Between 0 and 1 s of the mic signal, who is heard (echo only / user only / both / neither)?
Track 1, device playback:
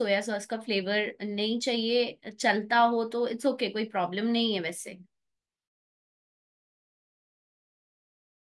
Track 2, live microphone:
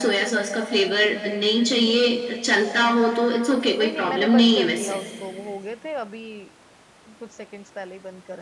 echo only